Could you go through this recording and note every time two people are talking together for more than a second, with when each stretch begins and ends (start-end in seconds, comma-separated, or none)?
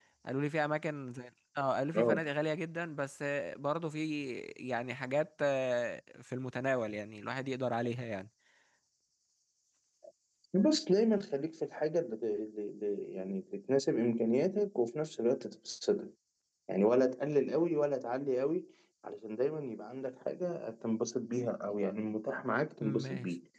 none